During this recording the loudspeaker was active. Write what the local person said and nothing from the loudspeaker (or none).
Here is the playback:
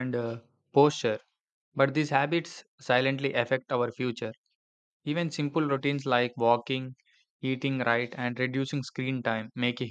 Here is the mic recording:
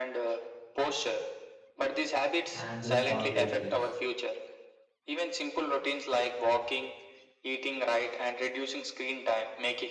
and responsibilities.